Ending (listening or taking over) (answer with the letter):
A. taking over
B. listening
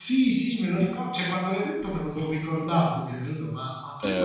A